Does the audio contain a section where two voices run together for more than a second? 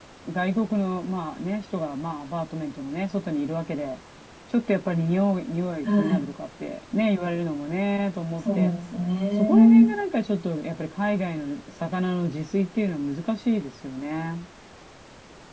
No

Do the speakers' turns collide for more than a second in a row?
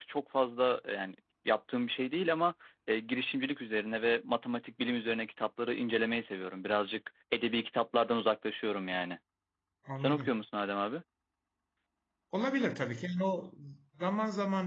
No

